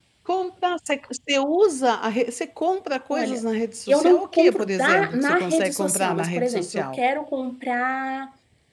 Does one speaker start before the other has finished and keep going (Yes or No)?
Yes